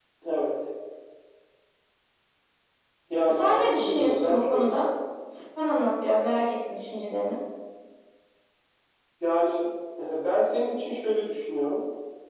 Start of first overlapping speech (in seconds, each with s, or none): 3.3 s